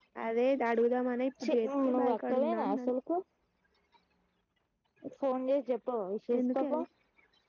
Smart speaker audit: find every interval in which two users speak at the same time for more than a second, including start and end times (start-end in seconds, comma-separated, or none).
1.4-2.9